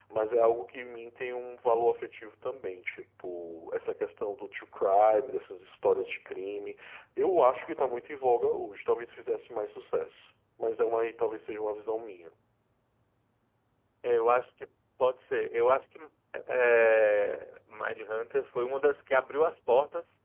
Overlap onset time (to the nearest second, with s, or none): none